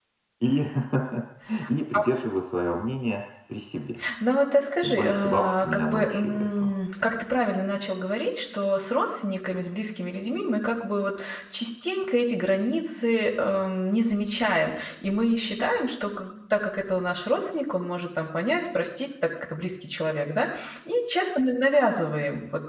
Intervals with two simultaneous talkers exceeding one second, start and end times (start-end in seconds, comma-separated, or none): 4.8-6.7